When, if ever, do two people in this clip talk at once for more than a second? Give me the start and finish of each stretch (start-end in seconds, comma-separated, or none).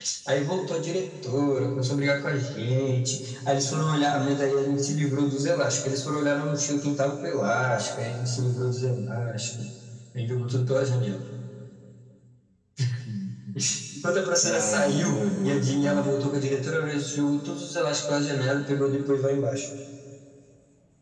14.4-16.1